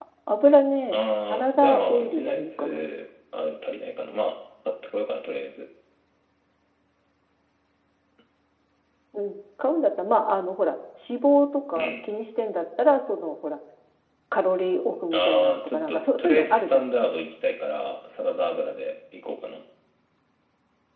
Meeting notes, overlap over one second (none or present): present